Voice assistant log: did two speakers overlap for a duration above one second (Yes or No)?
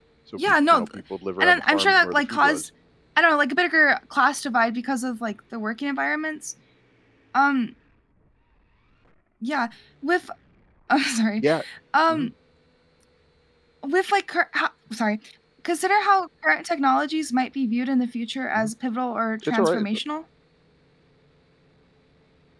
Yes